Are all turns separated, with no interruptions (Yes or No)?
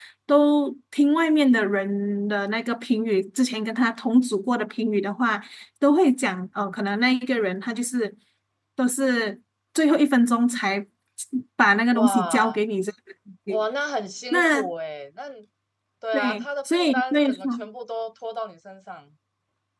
No